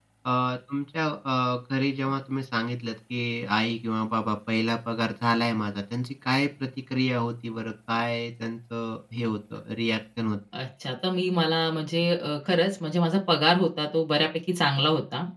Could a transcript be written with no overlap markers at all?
Yes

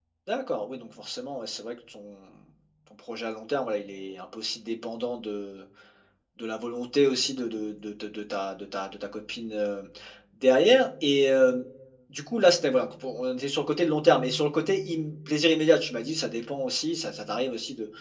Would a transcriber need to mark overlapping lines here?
No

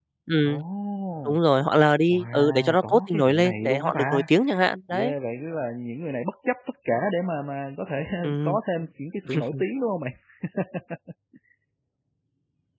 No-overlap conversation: No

